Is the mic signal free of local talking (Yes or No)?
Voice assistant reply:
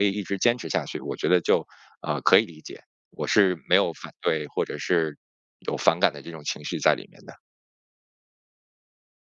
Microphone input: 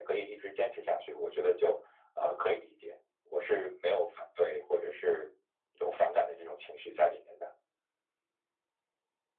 Yes